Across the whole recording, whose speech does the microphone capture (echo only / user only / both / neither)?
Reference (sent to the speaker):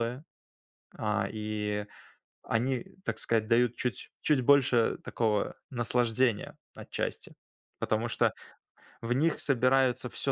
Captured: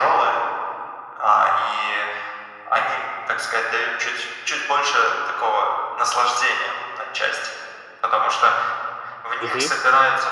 both